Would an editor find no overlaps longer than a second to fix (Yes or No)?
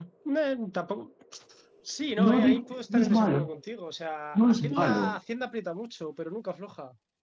No